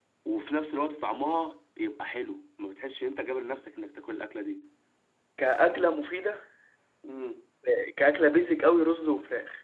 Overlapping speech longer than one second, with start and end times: none

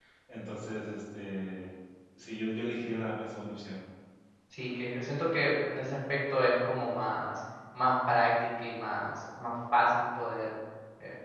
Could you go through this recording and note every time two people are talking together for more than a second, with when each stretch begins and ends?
none

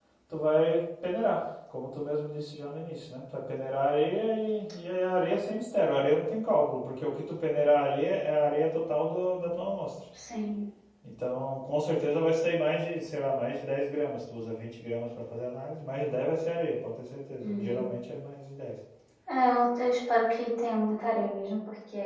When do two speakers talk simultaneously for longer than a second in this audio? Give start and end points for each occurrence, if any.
none

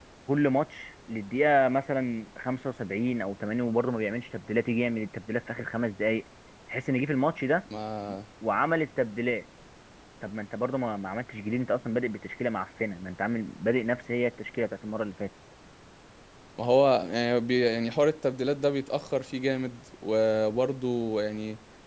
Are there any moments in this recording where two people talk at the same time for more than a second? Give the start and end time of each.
none

